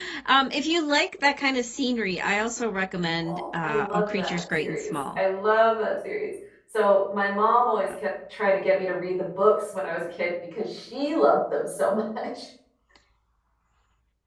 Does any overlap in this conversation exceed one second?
Yes, from 3.2 s

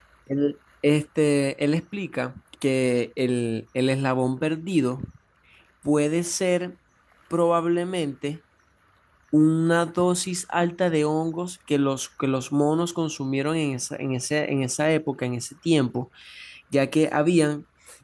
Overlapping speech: No

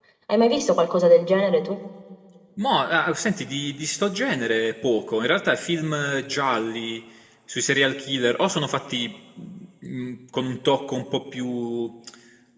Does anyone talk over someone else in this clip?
No

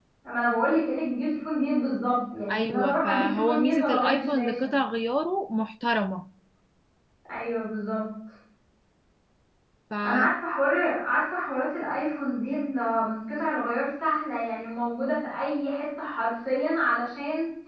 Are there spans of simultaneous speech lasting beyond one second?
Yes, from 2.5 s

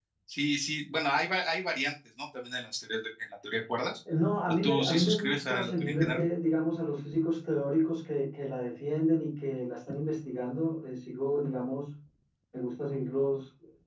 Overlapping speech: Yes, from 4.5 s

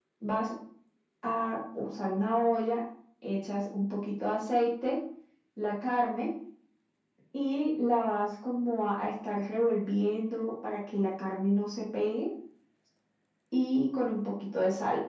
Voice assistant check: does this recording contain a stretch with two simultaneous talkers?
No

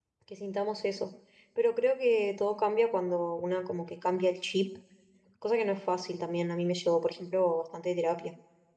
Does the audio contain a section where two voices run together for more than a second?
No

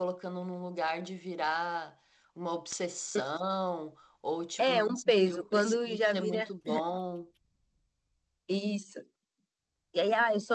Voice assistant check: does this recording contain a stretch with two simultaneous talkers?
Yes, from 4.6 s

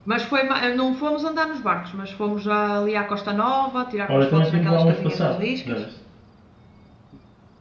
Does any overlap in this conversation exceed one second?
Yes, from 4.1 s

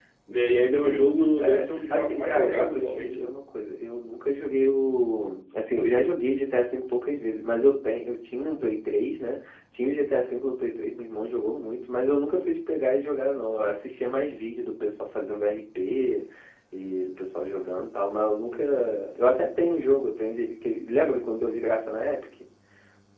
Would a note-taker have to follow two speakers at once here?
Yes, from 0.8 s

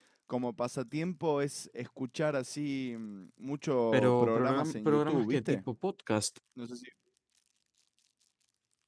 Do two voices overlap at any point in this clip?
Yes, from 3.9 s

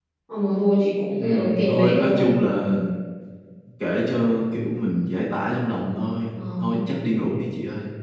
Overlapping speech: Yes, from 1.2 s

